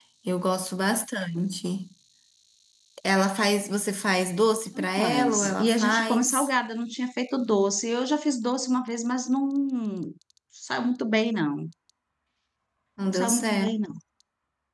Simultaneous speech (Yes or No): Yes